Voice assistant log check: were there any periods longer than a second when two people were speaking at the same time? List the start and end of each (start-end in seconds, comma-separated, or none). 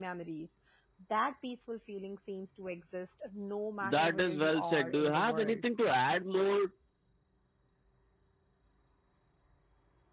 3.8-5.6